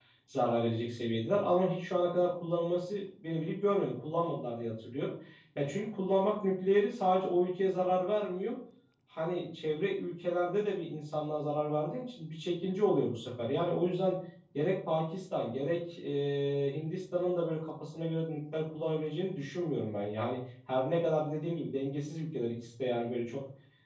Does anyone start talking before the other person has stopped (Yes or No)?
No